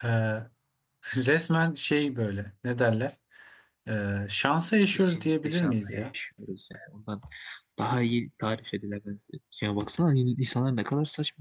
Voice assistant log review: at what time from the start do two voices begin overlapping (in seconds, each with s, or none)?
4.9 s